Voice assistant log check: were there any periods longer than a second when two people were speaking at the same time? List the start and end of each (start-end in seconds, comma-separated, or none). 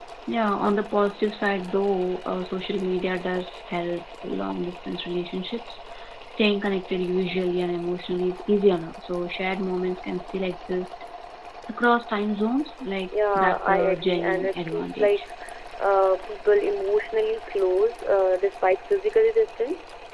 13.3-15.2